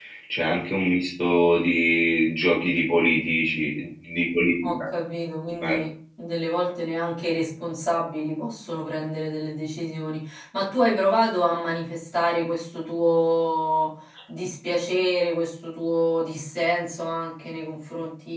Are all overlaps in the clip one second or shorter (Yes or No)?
Yes